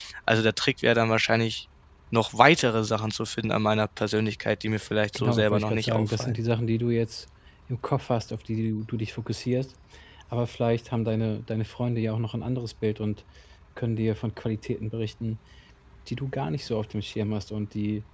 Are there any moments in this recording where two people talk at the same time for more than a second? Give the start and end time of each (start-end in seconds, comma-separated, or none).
5.2-6.4